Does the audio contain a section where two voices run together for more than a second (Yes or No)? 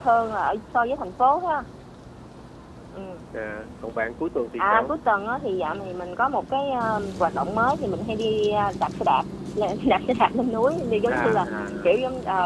No